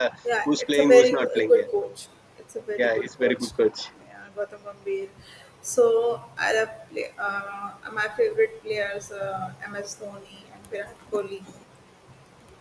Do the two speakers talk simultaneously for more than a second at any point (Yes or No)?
Yes